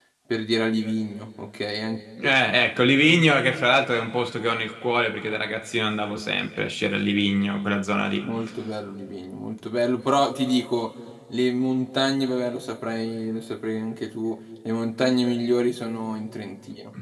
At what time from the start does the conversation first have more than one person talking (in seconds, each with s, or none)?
none